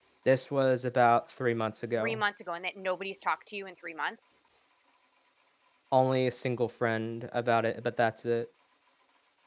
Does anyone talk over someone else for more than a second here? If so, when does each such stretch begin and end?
none

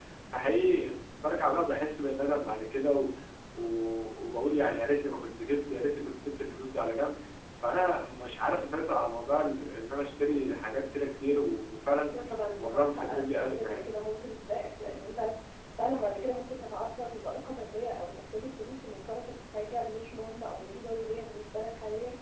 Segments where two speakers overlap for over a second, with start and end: 12.6-13.8

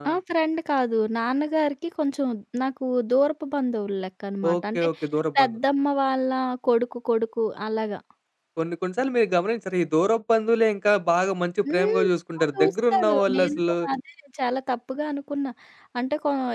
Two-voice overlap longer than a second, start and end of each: 12.4-13.6

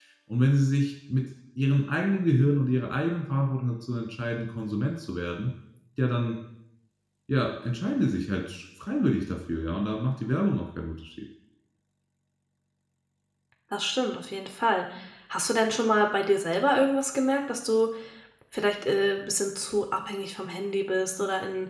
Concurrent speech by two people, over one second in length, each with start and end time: none

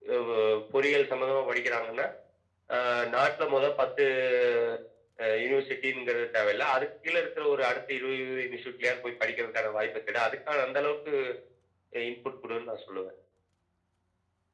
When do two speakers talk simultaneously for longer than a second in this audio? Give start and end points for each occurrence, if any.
none

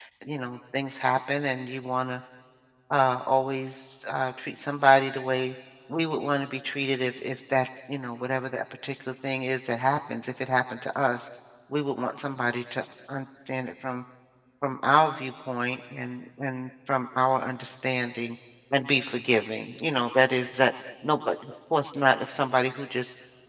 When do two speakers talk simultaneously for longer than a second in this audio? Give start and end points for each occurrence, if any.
none

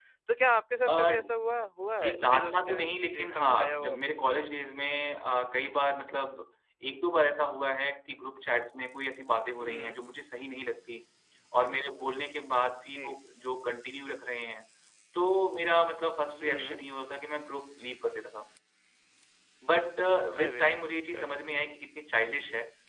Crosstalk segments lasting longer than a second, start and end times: 2.0-4.0

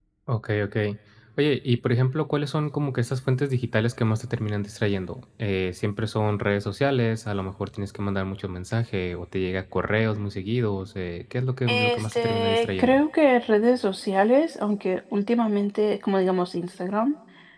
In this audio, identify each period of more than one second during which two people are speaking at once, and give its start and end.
11.7-13.0

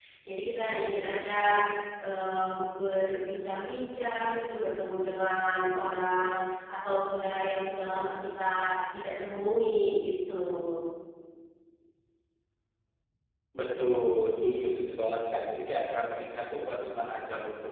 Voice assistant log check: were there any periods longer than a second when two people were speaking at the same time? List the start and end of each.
none

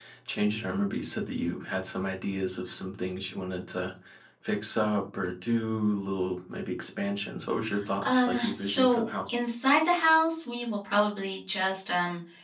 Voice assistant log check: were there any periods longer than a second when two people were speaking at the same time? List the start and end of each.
8.0-9.4

